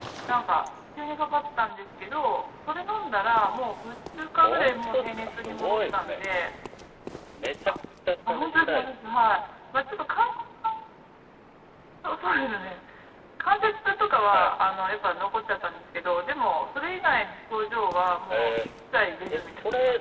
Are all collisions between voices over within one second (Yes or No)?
No